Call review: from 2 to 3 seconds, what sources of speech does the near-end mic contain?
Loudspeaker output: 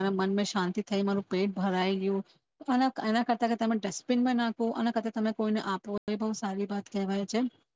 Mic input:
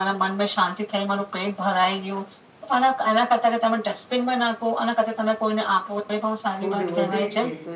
echo only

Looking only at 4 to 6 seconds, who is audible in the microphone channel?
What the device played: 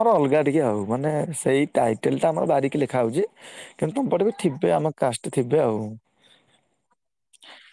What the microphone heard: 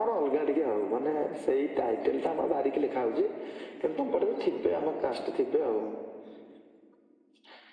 echo only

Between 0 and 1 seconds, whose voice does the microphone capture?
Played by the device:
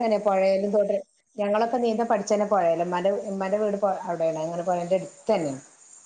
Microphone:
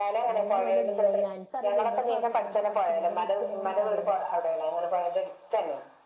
both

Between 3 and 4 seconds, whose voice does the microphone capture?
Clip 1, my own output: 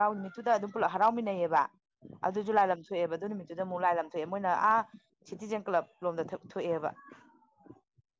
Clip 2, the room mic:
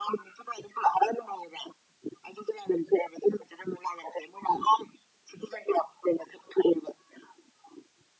echo only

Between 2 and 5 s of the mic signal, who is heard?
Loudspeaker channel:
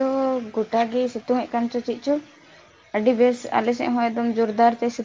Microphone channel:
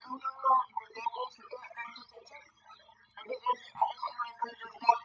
echo only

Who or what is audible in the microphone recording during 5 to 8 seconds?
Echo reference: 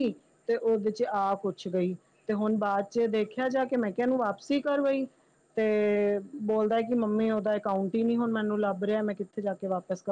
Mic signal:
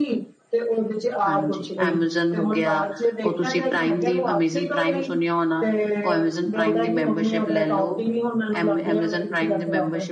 both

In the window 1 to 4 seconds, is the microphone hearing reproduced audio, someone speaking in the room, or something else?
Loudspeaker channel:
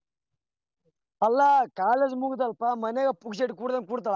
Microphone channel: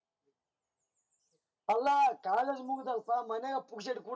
echo only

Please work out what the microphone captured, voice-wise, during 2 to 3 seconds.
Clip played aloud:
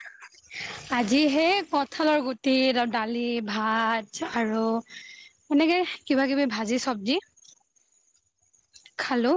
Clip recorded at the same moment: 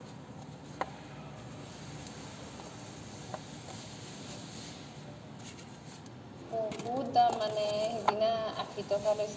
neither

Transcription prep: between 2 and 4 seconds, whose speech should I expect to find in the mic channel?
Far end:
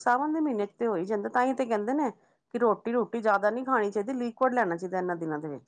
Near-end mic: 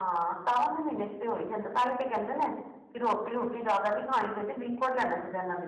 echo only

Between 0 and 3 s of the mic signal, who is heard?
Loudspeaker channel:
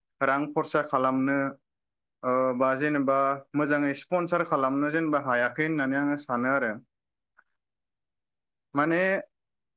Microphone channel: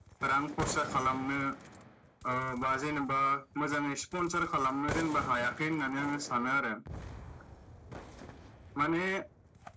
echo only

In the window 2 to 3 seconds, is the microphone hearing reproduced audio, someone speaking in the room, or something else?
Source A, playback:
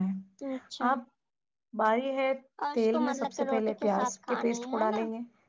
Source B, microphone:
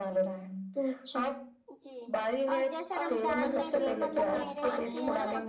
both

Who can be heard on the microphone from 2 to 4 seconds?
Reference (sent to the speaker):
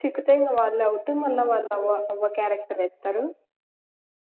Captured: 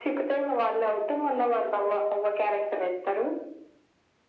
echo only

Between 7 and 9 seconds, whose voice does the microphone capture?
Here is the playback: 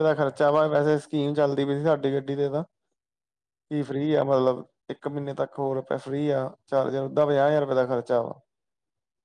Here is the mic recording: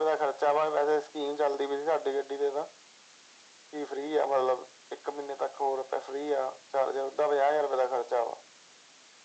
echo only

